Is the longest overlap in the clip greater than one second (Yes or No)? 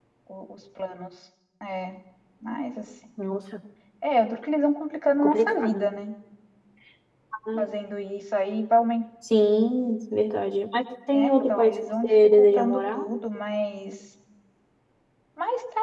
Yes